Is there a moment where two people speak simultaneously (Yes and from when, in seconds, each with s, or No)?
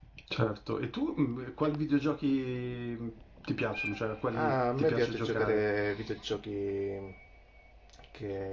Yes, from 4.3 s